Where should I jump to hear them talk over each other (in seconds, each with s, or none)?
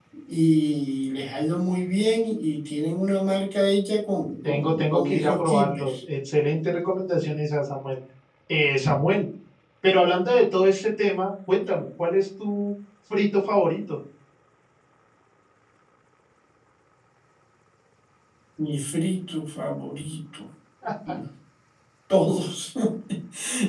4.4 s